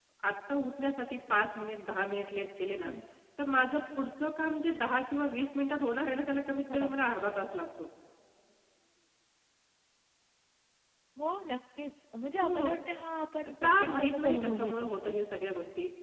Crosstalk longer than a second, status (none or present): present